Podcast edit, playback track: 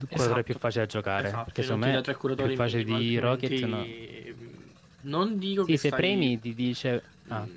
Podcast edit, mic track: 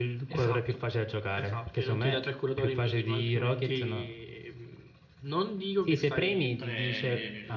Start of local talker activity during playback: 6.5 s

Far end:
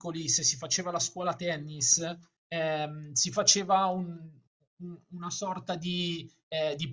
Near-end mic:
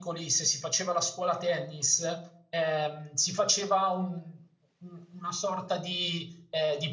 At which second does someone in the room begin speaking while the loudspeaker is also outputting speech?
none

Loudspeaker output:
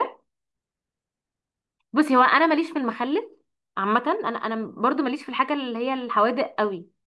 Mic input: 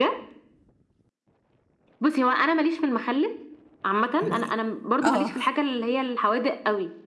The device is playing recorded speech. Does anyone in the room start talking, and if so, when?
4.2 s

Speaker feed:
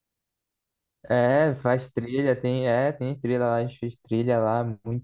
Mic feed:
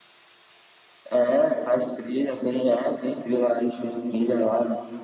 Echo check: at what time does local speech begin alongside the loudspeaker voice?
none

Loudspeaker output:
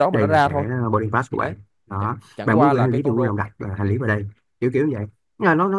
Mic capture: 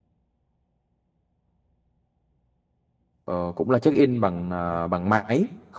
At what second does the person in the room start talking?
3.2 s

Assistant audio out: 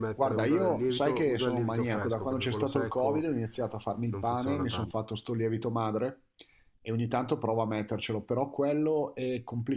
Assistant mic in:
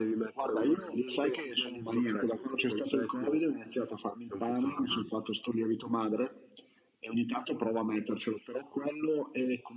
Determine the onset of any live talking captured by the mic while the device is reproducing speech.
none

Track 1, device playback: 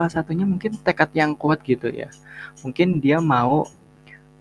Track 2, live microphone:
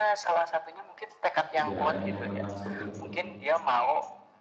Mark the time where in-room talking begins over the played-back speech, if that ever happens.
1.6 s

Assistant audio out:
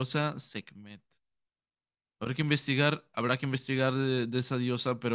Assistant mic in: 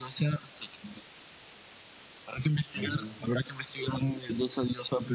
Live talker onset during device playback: 2.7 s

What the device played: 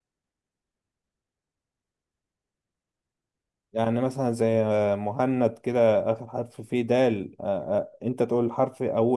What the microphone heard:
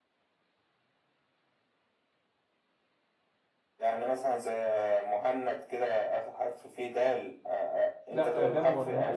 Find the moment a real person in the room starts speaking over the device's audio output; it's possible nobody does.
8.1 s

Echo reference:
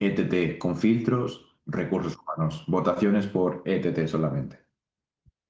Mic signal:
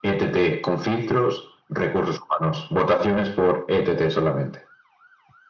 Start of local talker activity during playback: none

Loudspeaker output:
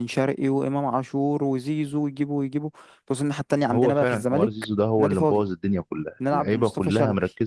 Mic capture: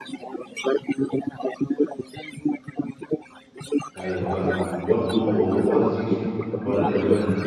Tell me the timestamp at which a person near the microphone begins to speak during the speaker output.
4.0 s

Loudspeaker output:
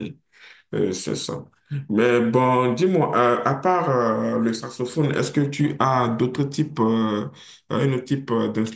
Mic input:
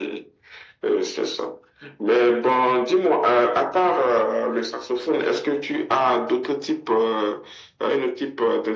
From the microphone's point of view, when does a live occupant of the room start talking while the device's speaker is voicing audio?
none

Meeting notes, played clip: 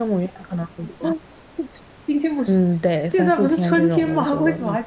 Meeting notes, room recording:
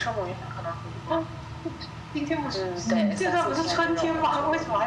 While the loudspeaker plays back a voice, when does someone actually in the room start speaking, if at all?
2.8 s

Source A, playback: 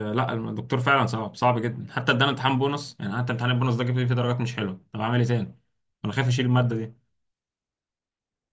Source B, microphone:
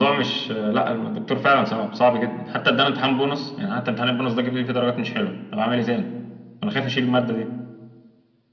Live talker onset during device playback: none

